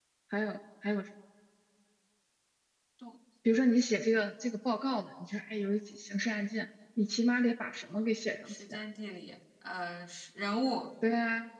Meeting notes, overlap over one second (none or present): none